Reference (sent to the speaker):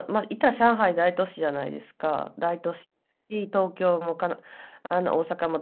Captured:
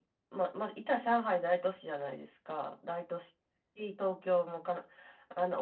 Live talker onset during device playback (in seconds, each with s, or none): none